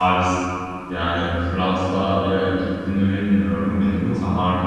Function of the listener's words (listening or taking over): listening